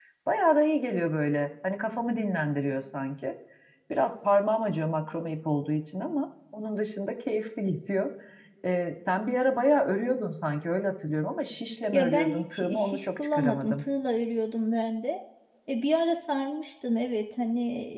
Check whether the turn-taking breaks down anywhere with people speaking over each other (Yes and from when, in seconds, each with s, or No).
Yes, from 11.9 s